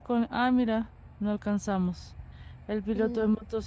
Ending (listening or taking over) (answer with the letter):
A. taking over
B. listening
B